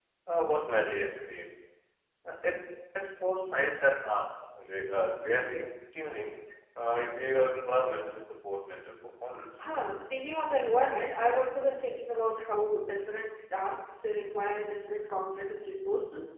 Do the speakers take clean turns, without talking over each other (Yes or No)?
Yes